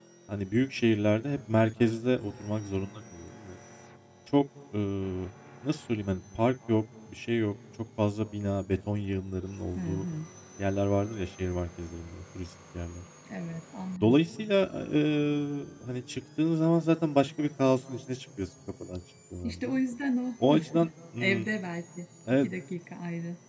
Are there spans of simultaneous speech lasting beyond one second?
No

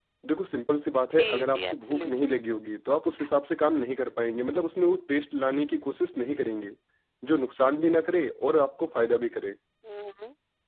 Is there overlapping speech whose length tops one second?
Yes, from 1.1 s

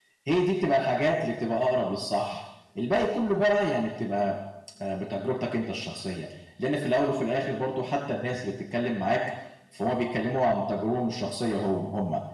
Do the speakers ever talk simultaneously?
No

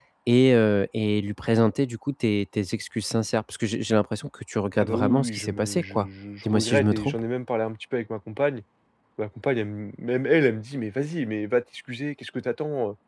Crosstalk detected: Yes, from 4.8 s

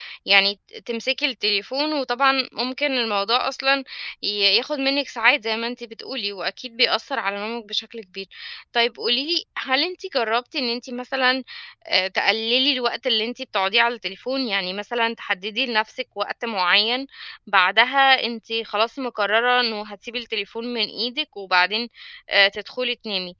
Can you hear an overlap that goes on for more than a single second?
No

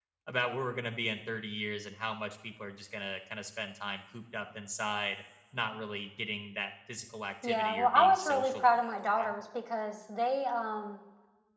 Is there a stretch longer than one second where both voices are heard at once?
Yes, from 7.4 s

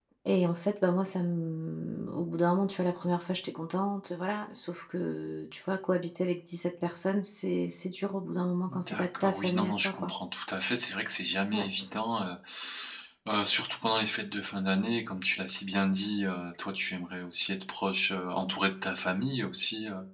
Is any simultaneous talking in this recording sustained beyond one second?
Yes, from 8.7 s

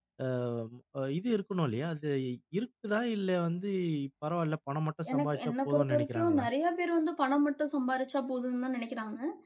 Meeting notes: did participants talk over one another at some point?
Yes, from 5.1 s

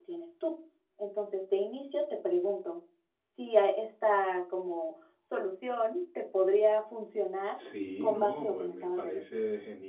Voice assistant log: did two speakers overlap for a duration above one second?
Yes, from 8.0 s

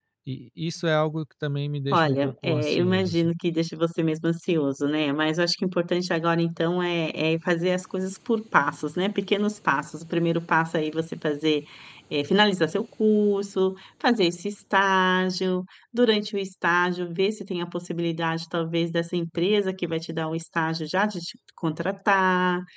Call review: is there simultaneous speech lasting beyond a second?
Yes, from 1.9 s

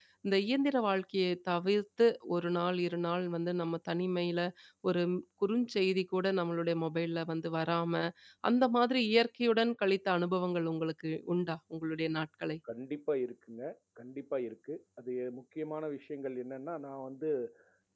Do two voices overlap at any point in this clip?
No

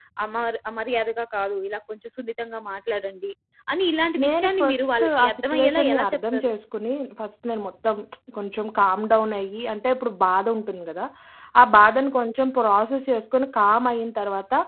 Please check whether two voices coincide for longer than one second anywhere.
Yes, from 4.2 s

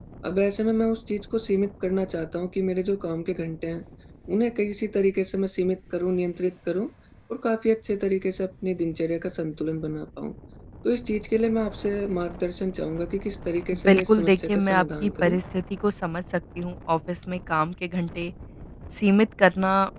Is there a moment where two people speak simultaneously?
Yes, from 13.9 s

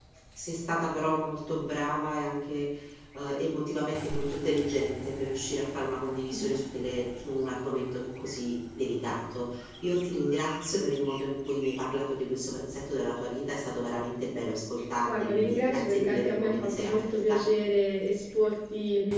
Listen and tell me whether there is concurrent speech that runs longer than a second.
Yes, from 15.0 s

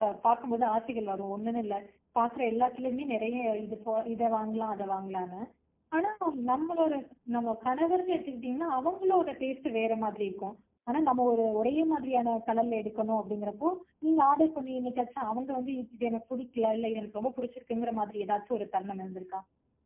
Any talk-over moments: No

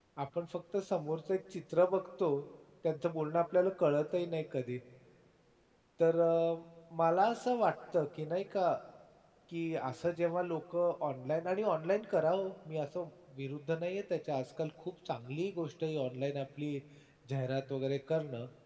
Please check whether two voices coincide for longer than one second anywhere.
No

